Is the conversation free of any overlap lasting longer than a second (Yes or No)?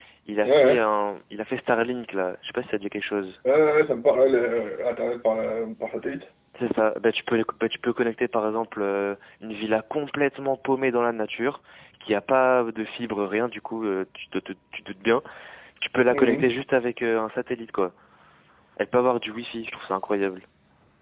Yes